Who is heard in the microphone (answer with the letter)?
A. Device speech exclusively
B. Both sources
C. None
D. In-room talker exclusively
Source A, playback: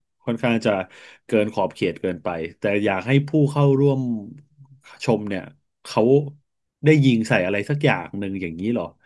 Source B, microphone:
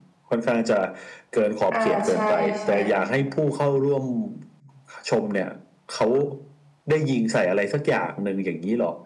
B